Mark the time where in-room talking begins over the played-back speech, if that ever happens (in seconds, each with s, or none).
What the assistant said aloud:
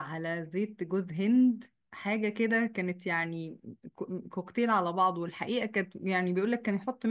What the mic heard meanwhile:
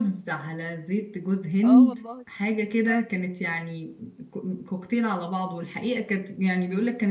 1.6 s